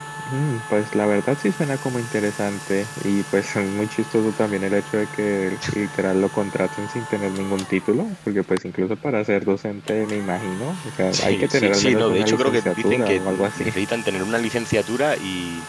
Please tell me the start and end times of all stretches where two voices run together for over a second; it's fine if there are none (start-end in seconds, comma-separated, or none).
11.1-13.7